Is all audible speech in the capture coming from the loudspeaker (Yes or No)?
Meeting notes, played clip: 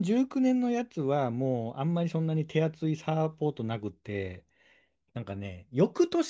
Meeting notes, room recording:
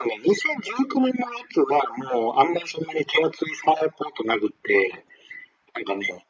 Yes